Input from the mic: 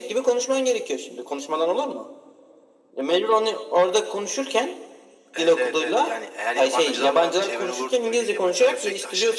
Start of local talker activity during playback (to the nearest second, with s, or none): none